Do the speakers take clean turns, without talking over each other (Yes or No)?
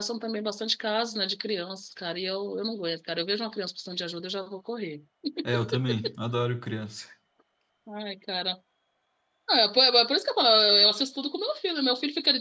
Yes